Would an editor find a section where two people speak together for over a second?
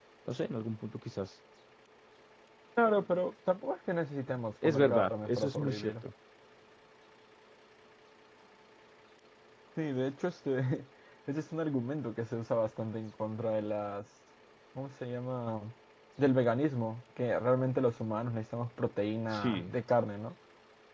Yes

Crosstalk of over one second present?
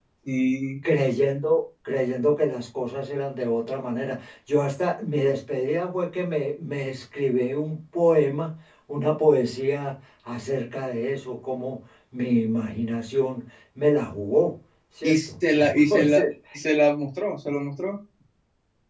Yes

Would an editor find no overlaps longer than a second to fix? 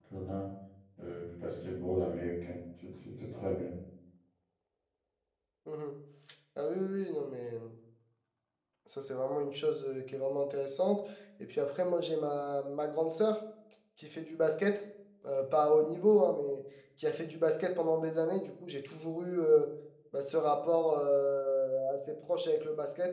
Yes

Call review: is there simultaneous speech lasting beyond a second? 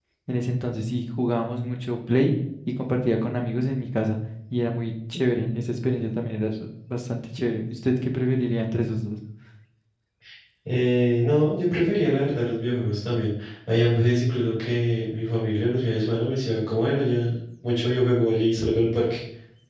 No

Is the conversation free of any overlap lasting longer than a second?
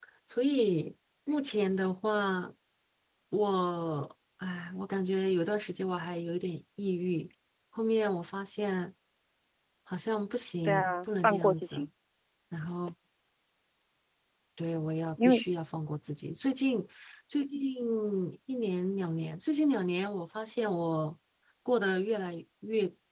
No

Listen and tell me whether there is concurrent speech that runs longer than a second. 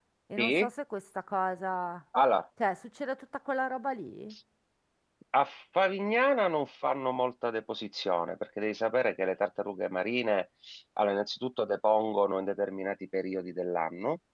No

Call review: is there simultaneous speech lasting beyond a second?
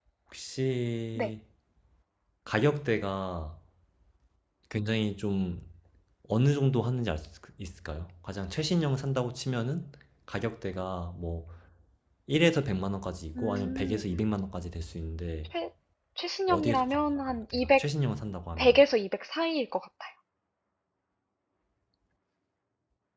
Yes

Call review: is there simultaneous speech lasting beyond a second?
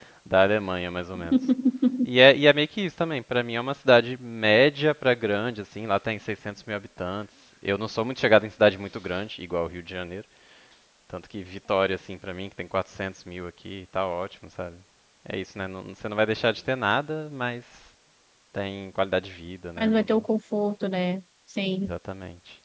No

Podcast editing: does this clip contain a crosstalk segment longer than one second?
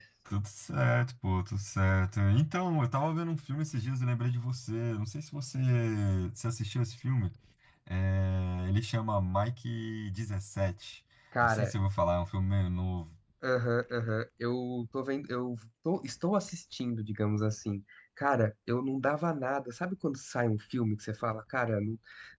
No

